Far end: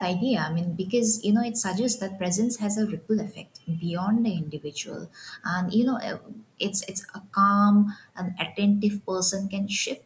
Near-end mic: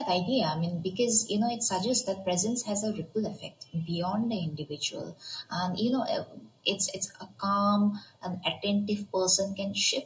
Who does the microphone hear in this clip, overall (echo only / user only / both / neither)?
echo only